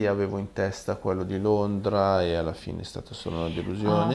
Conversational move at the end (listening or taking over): taking over